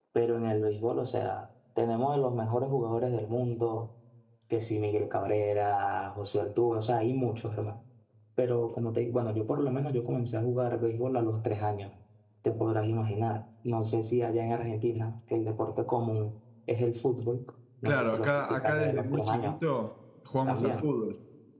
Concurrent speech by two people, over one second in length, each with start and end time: 17.9-19.5

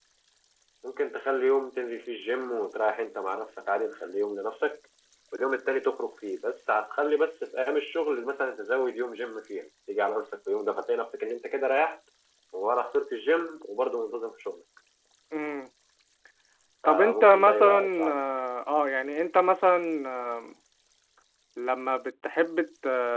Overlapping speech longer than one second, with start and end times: 16.9-18.2

